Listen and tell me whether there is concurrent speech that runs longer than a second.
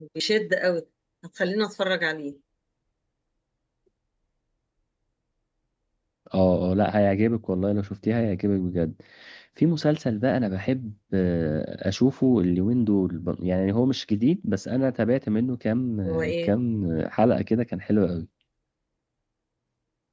No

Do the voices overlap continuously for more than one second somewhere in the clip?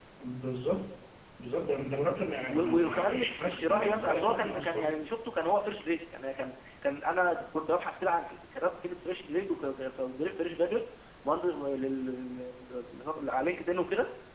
Yes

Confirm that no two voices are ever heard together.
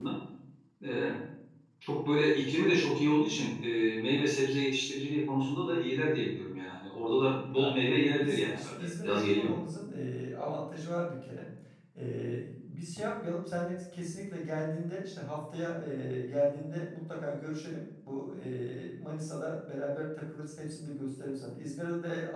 No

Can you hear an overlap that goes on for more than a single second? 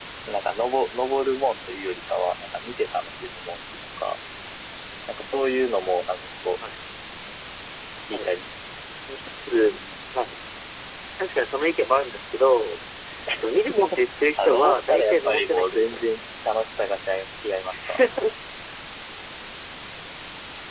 Yes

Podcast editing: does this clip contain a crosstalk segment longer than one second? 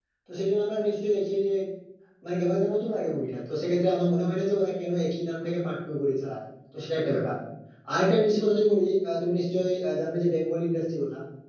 No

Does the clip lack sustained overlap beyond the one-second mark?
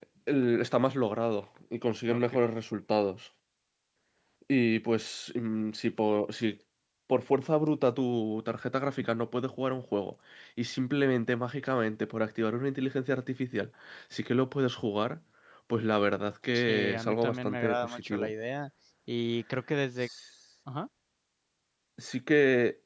No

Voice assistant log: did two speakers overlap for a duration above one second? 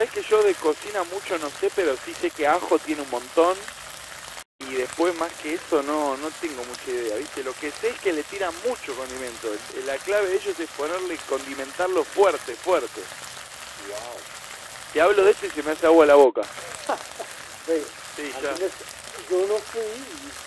No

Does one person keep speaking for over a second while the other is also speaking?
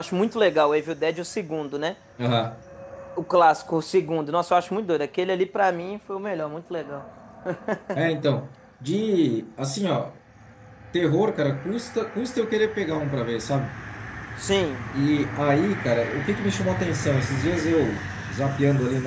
No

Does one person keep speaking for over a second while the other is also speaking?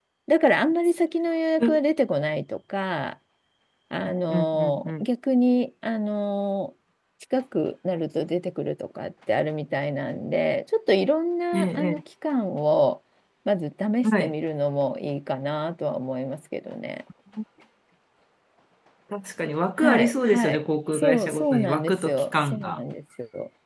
Yes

